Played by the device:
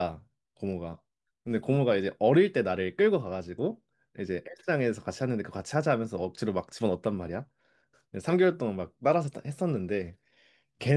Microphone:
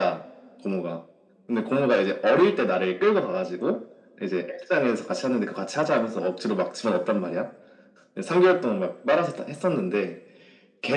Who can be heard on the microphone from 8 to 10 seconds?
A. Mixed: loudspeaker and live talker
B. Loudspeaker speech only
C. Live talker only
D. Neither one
B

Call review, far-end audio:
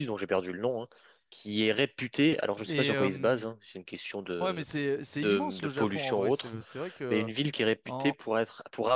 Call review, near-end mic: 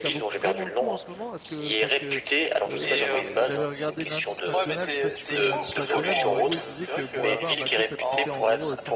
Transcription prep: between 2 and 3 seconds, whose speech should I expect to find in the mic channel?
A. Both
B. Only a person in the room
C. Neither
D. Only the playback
A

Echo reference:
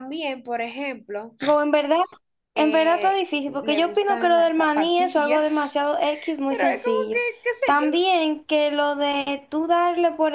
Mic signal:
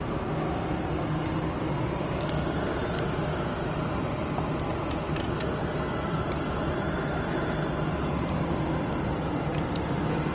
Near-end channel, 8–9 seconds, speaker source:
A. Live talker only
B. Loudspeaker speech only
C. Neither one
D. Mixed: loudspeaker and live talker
C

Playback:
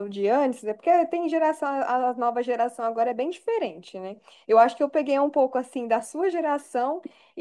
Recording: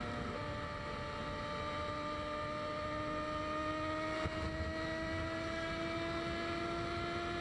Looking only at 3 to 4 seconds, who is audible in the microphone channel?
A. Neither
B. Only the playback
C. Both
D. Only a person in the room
A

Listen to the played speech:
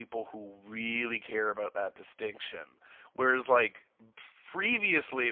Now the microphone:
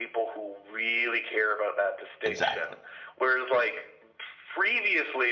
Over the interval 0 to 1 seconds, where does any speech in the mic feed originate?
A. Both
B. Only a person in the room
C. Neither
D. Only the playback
D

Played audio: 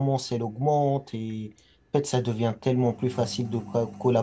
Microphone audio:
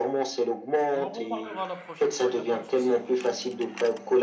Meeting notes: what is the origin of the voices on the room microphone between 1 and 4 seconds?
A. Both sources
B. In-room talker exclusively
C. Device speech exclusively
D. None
A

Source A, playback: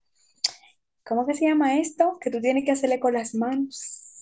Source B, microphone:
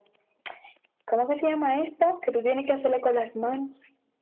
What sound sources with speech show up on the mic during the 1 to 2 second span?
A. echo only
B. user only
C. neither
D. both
A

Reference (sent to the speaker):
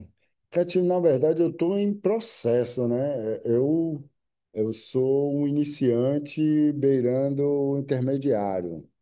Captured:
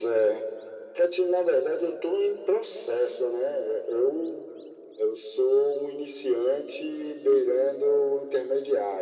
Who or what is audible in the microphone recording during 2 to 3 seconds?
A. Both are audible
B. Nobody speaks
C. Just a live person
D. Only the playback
D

